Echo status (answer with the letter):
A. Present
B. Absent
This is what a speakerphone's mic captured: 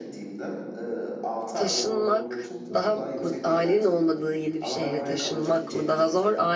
A